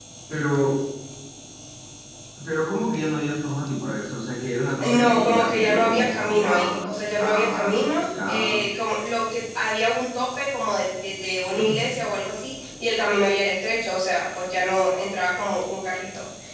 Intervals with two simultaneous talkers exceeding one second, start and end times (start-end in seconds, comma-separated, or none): 4.8-8.6